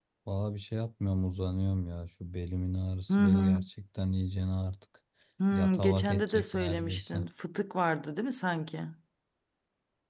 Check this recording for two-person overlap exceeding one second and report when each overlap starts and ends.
5.5-7.3

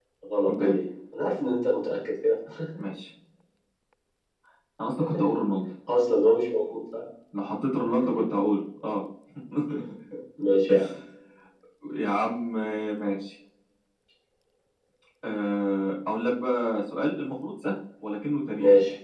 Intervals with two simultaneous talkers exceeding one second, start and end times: none

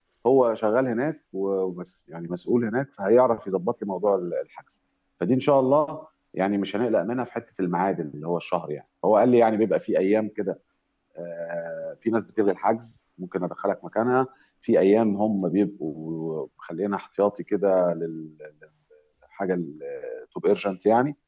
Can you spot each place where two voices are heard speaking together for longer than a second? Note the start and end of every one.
none

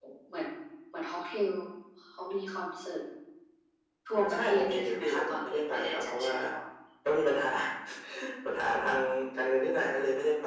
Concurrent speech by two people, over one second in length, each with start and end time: 4.1-6.3

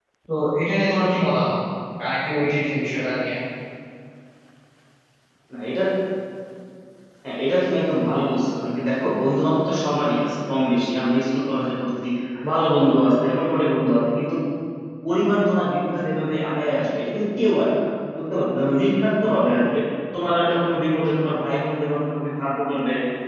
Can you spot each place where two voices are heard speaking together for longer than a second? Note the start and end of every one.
none

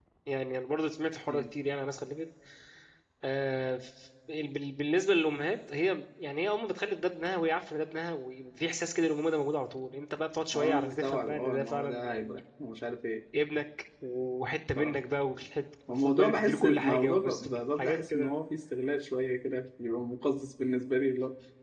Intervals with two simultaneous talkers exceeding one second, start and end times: 10.6-12.4, 15.9-18.4

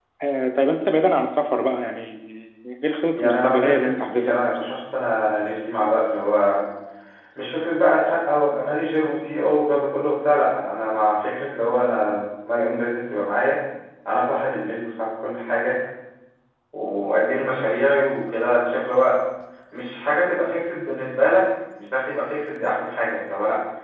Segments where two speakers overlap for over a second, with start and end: 3.1-4.6

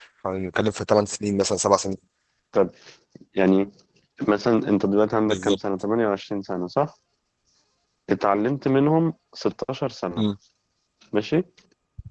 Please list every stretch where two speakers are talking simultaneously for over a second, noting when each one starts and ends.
none

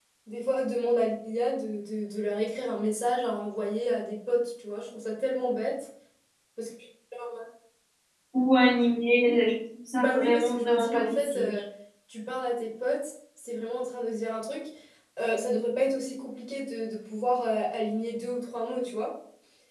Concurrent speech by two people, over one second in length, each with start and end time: 10.0-11.5

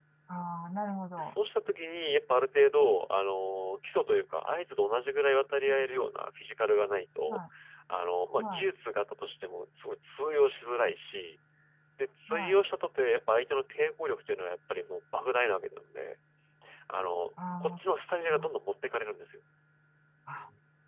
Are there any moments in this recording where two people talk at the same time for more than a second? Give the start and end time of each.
none

